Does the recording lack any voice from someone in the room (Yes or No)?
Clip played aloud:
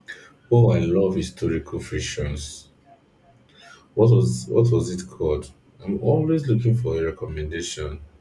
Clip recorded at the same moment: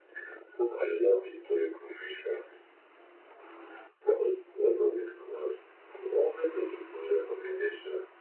Yes